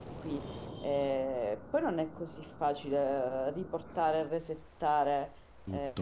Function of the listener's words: listening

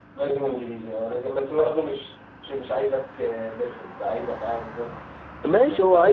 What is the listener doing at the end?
taking over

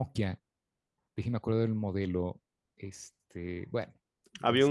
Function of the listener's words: taking over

